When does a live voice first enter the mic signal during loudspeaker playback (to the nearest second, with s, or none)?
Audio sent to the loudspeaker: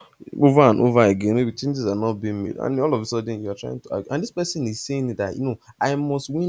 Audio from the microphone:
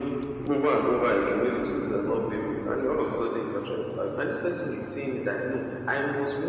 none